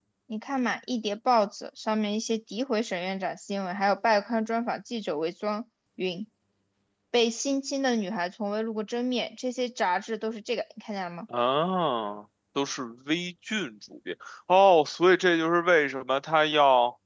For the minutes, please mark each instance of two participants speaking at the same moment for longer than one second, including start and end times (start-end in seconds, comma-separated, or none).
none